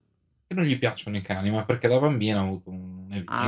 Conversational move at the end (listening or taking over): taking over